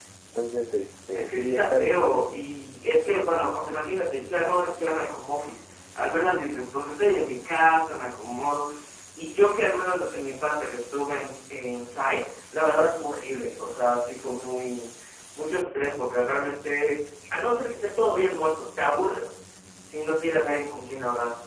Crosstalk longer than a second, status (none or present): present